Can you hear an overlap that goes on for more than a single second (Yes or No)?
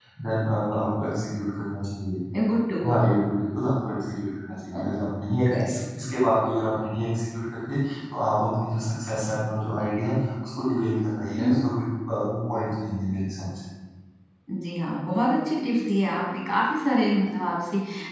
No